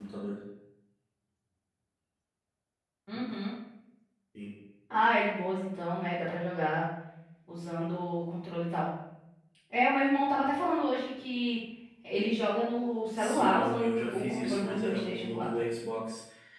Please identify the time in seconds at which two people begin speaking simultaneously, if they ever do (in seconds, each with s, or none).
13.1 s